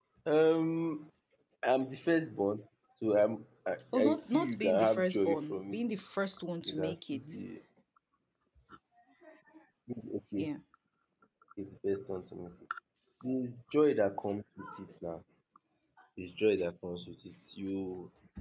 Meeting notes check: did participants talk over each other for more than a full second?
Yes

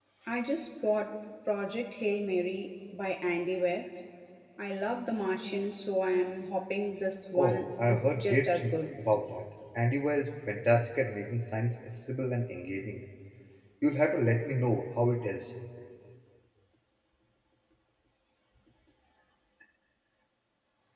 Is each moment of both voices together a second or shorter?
No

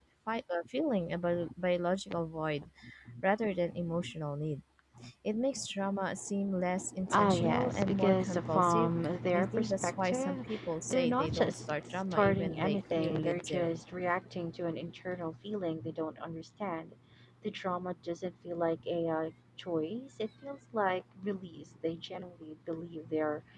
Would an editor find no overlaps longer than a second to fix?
No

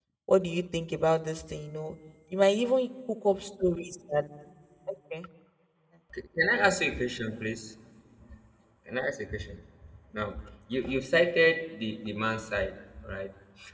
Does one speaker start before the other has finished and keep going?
No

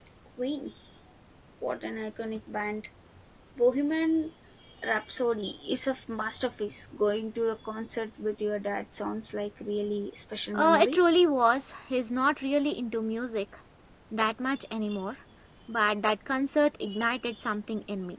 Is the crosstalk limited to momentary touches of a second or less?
Yes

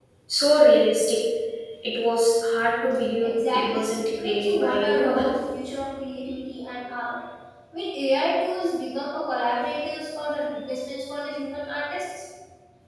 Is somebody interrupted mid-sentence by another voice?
Yes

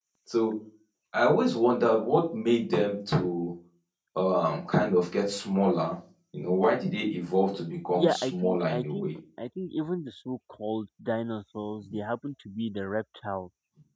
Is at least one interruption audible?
Yes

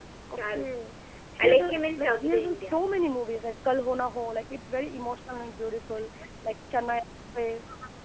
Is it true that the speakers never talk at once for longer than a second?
No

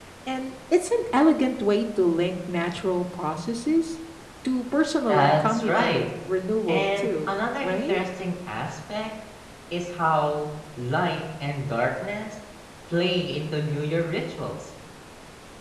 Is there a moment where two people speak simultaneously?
Yes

